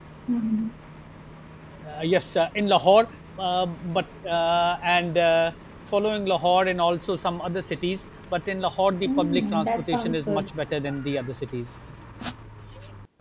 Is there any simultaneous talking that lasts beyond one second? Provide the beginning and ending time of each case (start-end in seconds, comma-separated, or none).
9.1-10.4